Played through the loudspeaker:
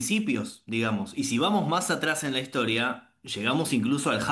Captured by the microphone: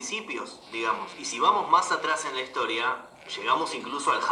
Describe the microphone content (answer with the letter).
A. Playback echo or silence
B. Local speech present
A